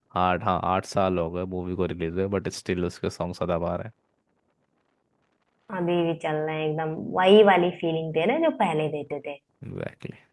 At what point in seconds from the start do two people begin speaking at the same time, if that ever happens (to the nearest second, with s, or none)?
none